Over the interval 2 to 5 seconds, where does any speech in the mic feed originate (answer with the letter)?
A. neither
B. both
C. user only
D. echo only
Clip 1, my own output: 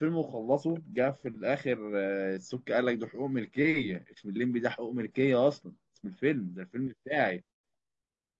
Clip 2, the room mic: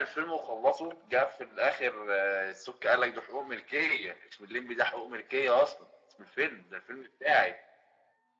D